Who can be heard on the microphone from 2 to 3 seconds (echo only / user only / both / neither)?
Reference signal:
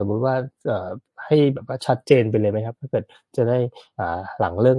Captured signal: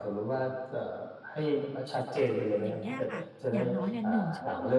both